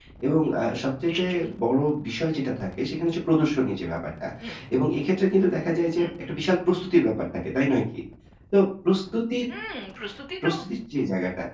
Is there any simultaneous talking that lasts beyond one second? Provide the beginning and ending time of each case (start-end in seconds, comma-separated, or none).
none